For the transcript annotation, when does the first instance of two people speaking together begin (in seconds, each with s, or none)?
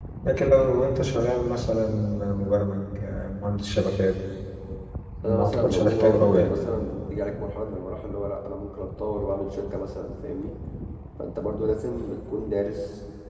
5.2 s